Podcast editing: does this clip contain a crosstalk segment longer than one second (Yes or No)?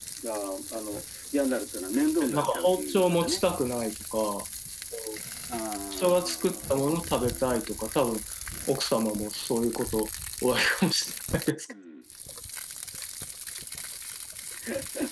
Yes